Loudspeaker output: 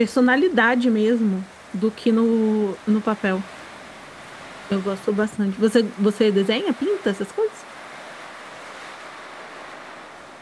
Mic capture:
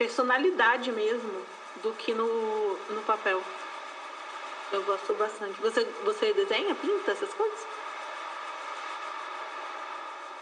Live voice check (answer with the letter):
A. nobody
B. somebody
A